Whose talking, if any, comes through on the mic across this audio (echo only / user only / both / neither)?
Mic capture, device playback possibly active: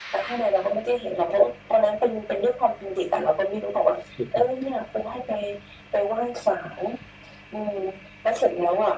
both